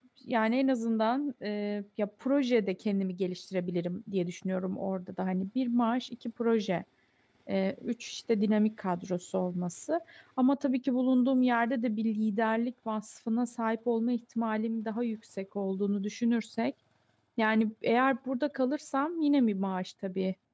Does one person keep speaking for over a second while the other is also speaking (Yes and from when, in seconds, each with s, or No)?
No